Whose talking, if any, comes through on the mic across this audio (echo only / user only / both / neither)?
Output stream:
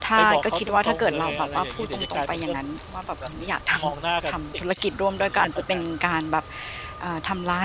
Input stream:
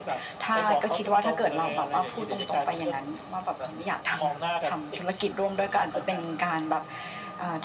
echo only